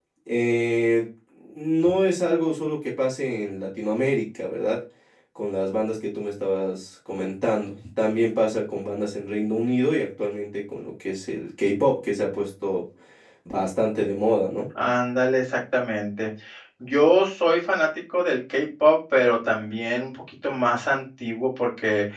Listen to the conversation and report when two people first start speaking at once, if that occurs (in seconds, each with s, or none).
none